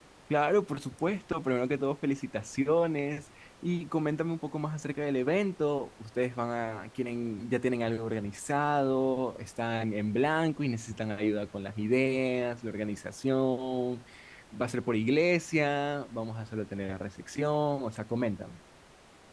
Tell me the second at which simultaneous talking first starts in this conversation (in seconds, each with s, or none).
none